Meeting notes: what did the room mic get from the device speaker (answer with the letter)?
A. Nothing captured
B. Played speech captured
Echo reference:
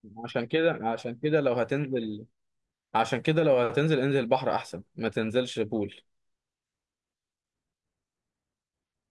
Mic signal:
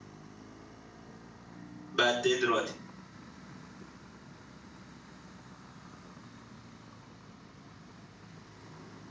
A